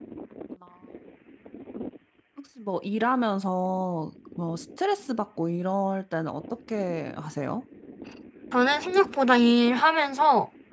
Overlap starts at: none

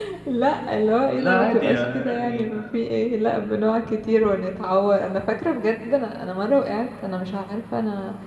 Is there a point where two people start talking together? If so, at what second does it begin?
1.2 s

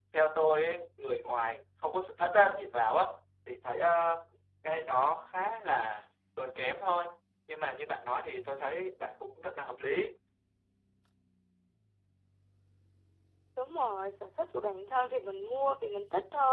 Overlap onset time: none

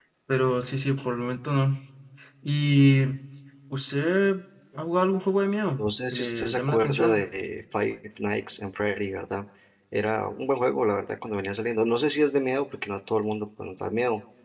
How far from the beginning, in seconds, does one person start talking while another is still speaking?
5.8 s

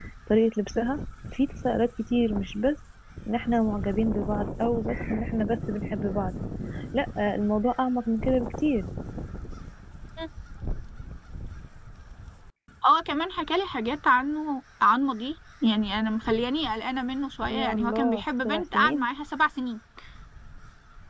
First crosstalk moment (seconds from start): 17.4 s

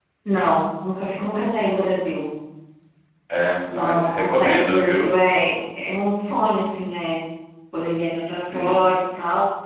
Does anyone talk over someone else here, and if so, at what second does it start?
3.7 s

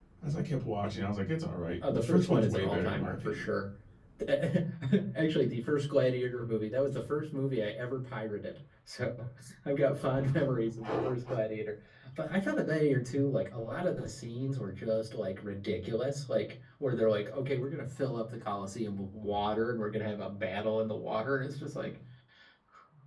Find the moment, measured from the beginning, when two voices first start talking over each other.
1.9 s

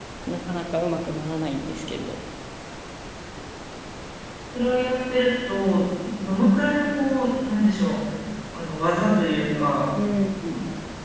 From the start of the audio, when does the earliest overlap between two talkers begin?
none

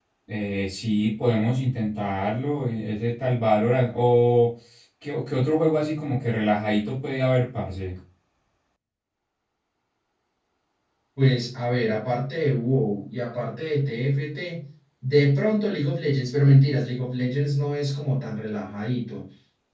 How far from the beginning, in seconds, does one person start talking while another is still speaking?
none

